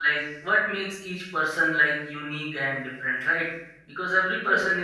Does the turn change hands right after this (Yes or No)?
No